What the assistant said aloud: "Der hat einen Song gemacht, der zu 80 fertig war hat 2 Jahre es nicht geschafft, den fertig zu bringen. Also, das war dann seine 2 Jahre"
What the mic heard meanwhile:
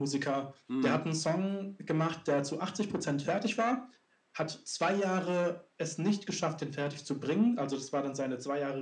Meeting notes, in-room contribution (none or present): present